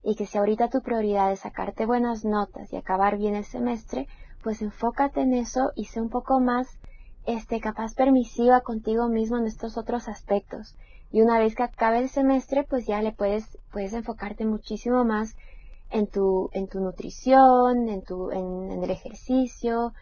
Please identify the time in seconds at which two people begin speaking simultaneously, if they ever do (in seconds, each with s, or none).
none